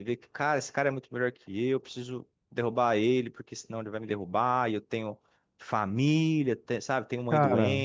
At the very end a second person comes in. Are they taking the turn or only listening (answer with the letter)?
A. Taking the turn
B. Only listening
B